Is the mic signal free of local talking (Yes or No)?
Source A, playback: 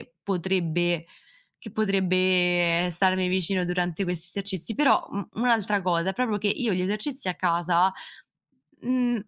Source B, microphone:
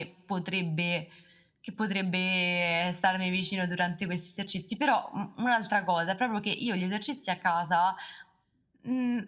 Yes